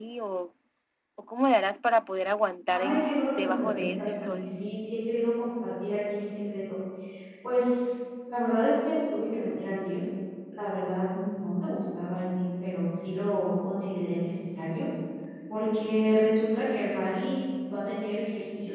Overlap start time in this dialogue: 2.7 s

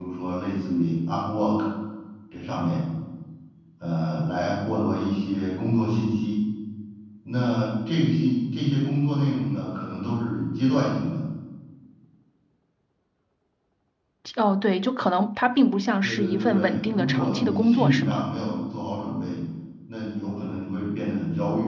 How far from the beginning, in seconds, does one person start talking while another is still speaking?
16.0 s

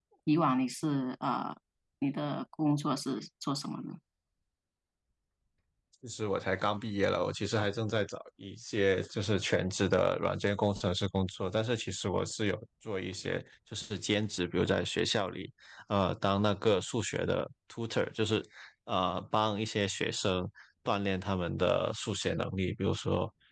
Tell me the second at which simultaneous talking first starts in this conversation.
none

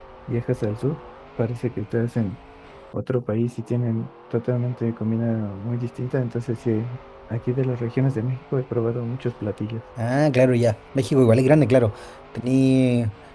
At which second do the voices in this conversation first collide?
none

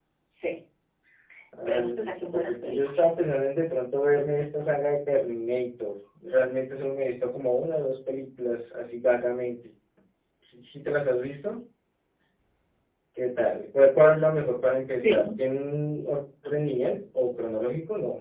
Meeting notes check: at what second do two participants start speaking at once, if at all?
1.7 s

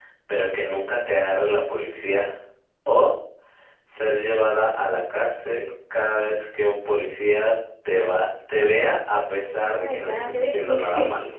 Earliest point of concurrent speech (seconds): 9.6 s

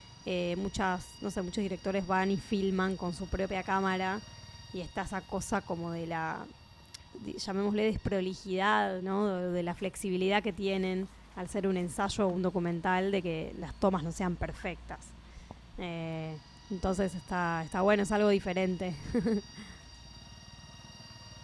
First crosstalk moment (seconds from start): none

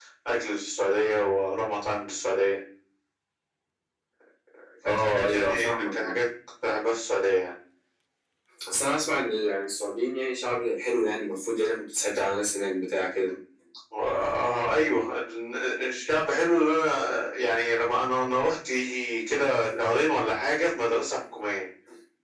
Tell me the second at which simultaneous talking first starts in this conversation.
4.8 s

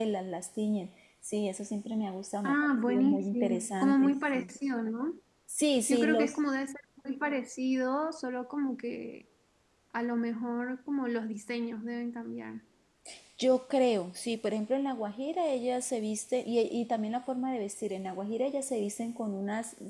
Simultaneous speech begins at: 2.4 s

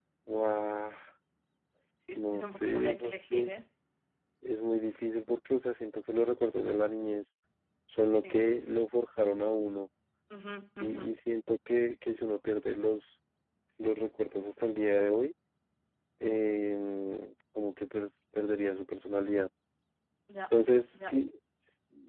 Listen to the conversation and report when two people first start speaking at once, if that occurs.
2.2 s

